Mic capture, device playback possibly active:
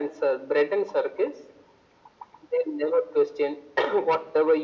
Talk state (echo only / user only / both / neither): echo only